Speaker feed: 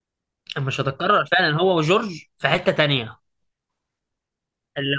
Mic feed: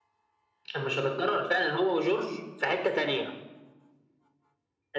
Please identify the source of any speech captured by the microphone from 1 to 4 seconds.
echo only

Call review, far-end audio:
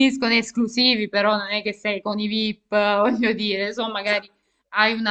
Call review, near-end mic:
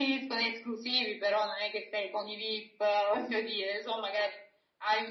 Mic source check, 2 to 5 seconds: echo only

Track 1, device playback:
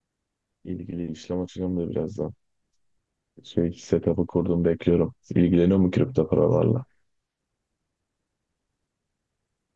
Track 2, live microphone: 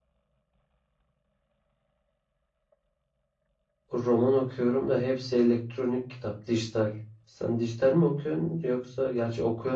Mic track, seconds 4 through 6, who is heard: user only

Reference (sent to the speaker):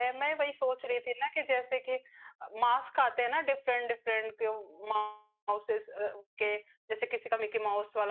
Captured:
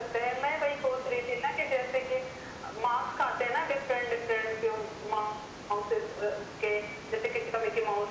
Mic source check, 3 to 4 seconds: echo only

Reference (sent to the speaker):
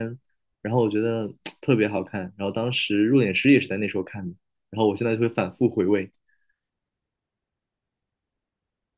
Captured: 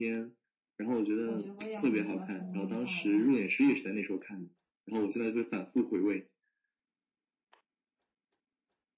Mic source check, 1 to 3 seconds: both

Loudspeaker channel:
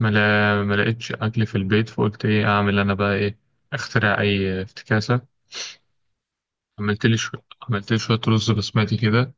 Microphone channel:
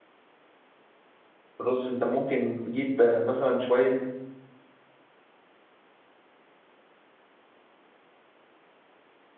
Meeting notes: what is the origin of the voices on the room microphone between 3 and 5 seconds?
user only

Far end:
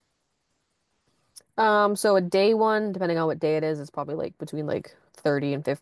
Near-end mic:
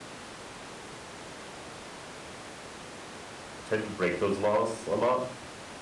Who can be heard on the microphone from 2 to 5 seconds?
user only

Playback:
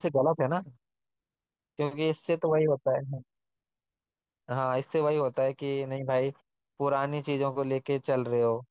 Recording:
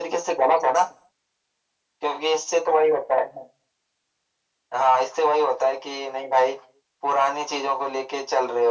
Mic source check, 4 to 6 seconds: echo only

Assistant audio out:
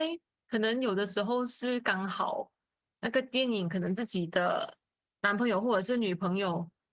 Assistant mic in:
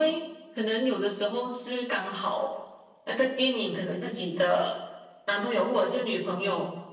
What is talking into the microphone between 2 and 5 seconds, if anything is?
echo only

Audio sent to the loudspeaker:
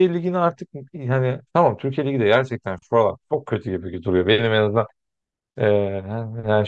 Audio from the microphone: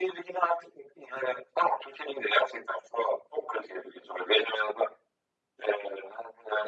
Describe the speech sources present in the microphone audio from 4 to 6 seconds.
echo only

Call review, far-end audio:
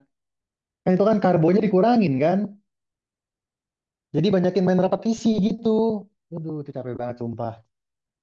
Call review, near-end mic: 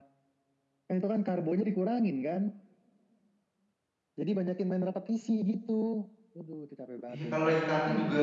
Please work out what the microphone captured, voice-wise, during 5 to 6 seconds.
echo only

